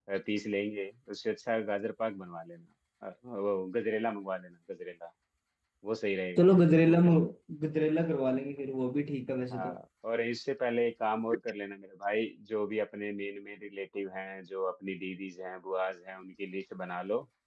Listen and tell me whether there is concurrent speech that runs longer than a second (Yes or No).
No